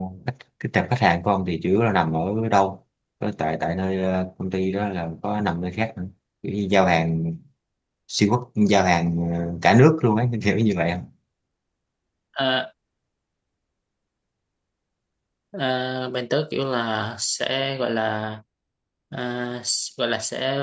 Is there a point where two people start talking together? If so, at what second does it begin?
none

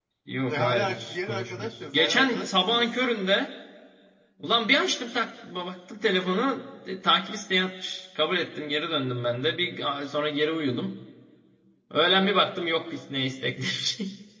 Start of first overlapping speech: 0.5 s

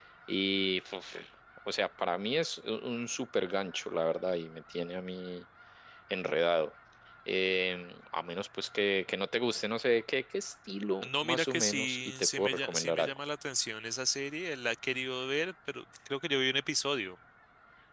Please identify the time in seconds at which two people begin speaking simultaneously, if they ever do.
11.0 s

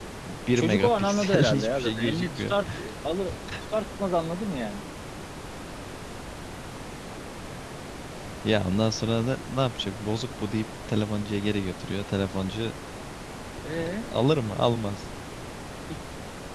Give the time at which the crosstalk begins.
0.5 s

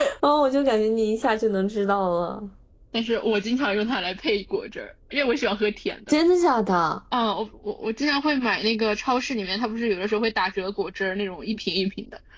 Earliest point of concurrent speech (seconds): none

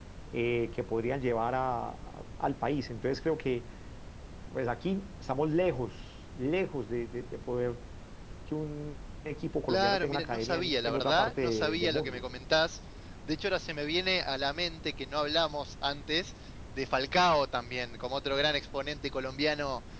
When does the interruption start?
9.7 s

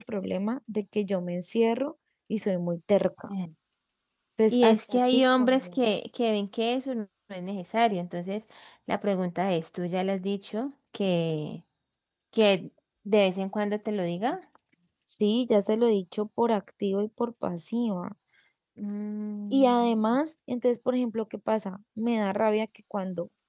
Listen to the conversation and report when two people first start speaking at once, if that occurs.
4.5 s

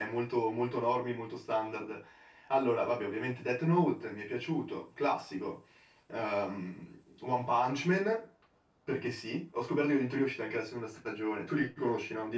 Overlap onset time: none

